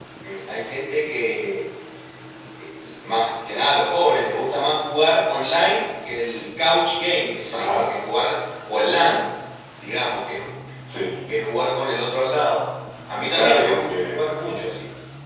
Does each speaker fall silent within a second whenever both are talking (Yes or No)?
No